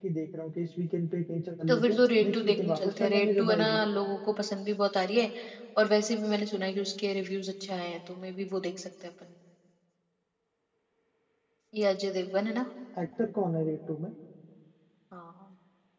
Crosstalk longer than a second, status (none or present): present